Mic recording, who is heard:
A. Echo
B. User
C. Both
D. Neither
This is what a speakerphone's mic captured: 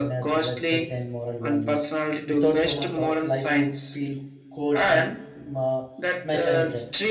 C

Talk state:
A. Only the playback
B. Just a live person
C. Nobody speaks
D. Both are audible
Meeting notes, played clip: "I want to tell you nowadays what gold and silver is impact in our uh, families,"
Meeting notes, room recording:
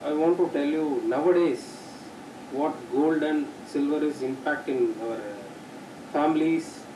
A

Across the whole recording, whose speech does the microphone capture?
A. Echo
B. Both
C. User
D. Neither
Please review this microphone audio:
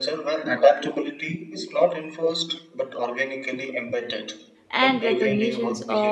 B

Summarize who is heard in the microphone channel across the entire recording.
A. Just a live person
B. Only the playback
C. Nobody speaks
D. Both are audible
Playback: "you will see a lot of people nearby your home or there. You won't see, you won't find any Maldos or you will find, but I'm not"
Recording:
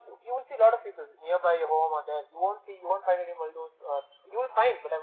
B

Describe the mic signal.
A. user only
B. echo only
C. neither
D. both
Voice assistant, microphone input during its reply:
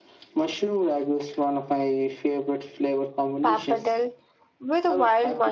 D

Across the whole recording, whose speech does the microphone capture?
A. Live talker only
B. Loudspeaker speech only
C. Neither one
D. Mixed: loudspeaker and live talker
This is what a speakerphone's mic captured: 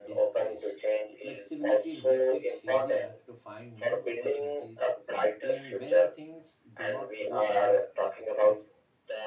D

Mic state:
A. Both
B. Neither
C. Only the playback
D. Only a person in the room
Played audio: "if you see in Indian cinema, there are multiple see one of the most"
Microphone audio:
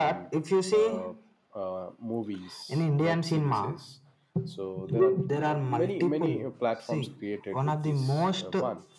A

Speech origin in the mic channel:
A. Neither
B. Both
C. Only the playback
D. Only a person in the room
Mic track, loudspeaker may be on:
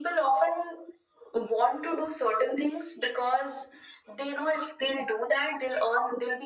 C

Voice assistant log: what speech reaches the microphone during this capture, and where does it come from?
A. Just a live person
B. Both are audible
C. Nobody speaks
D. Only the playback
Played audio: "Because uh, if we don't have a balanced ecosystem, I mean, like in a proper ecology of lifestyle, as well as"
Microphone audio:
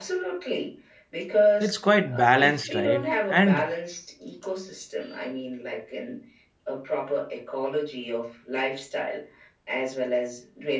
B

